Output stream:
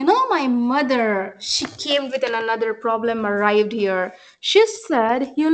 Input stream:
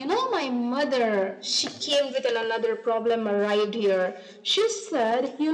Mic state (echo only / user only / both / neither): echo only